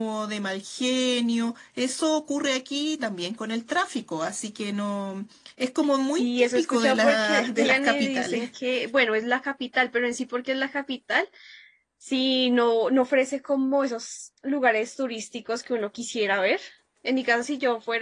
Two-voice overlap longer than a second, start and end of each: 6.1-8.5

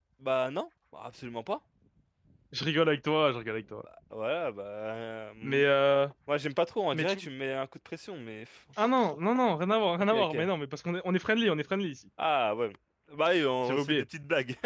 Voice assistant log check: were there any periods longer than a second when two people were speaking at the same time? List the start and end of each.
none

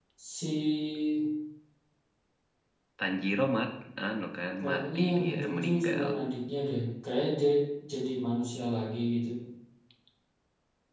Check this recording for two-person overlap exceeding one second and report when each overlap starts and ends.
4.6-6.1

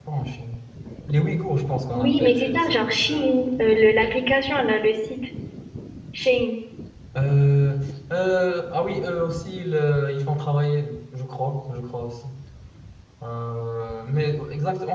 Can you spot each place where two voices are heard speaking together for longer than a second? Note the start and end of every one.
1.9-3.3

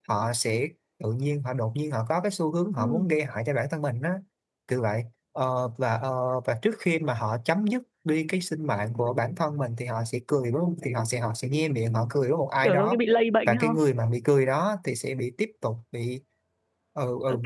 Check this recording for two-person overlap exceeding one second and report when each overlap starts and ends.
none

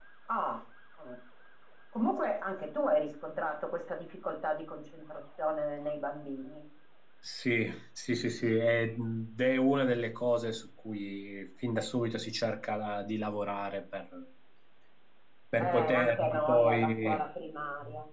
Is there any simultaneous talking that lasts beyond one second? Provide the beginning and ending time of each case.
15.6-17.2

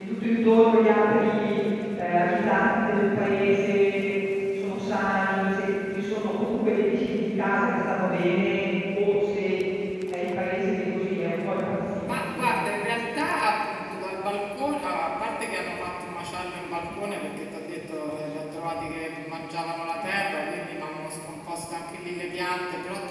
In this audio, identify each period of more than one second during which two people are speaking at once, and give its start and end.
none

